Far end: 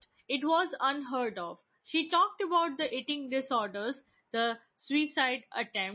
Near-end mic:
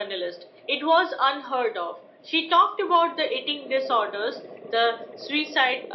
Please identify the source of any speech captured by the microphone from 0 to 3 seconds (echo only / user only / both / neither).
echo only